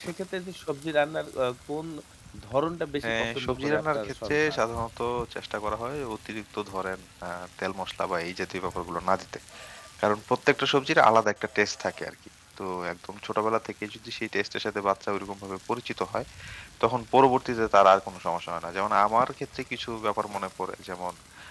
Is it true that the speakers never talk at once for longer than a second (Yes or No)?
No